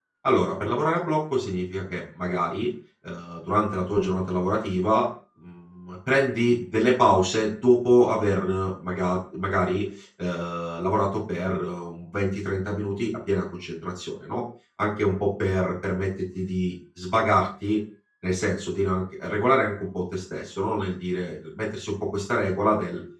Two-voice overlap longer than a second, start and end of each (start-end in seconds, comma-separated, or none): none